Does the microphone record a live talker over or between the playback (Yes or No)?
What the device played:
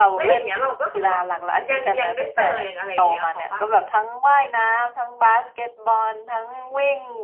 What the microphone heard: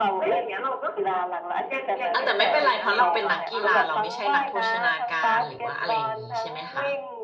Yes